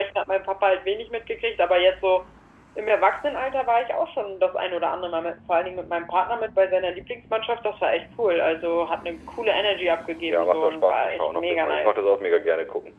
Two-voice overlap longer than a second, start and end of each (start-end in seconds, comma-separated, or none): 10.3-12.0